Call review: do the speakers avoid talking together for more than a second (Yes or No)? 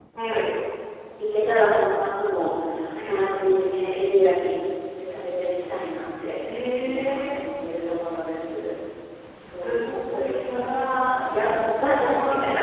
No